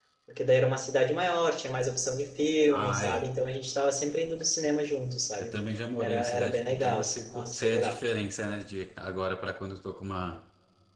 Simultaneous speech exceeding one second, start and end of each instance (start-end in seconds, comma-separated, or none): 6.0-8.0